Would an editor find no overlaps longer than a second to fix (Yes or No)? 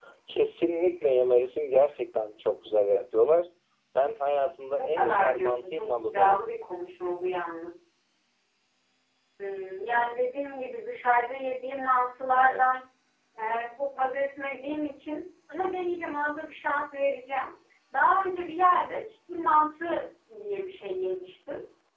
No